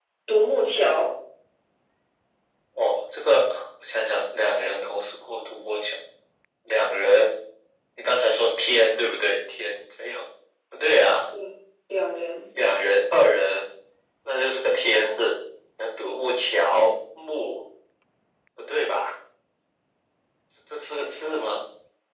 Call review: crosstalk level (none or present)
none